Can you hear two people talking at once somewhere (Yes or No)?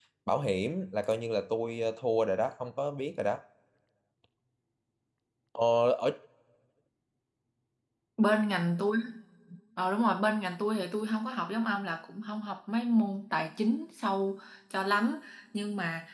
No